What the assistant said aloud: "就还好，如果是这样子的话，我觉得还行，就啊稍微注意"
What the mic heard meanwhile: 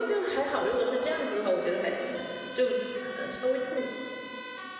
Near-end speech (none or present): none